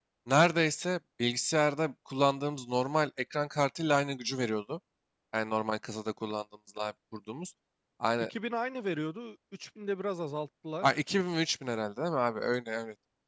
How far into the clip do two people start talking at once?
none

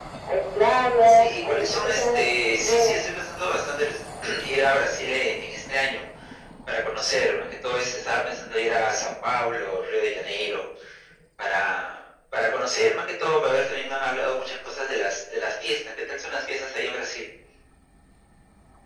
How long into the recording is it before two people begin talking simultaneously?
1.0 s

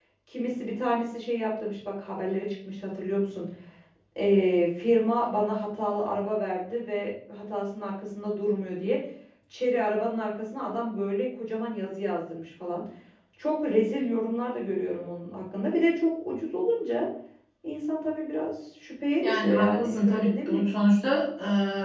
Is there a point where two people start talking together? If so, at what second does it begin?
19.2 s

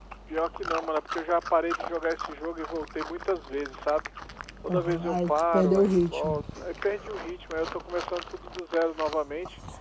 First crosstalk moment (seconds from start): 4.7 s

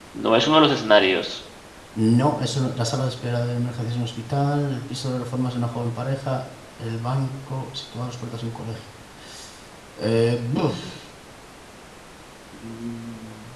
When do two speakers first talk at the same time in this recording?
none

